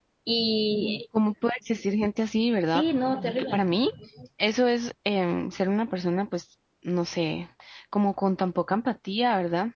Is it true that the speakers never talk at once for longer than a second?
Yes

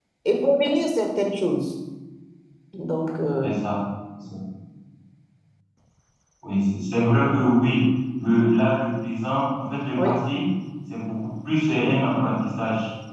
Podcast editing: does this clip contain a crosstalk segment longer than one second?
No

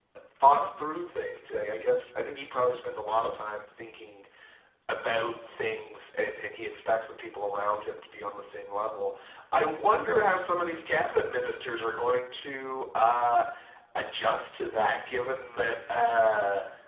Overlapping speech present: No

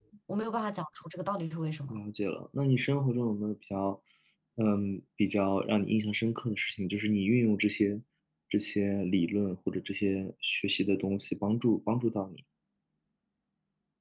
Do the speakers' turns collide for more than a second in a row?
No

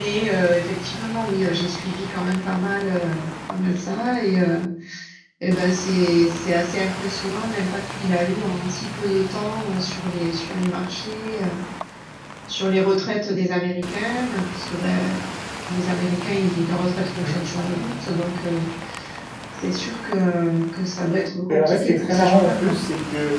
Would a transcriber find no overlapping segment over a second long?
No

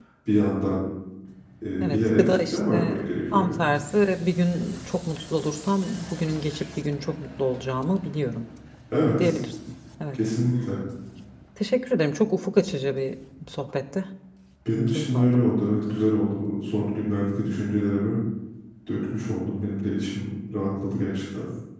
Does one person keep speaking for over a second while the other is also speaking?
Yes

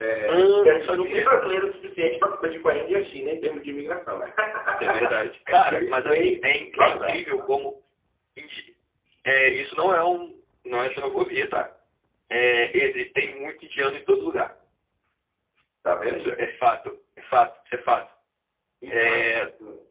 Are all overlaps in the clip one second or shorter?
No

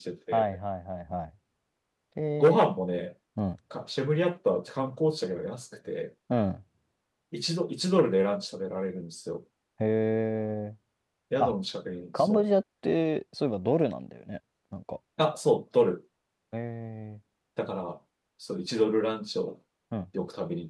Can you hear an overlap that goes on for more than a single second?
No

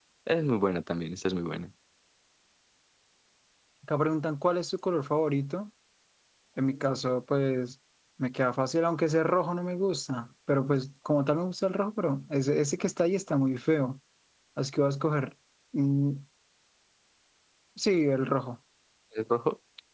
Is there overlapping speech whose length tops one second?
No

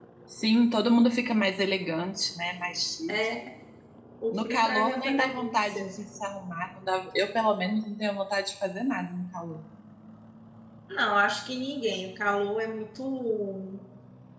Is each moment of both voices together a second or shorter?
No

